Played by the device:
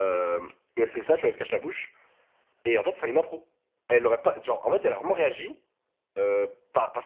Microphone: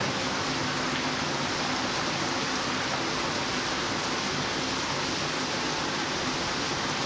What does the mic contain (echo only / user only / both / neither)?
neither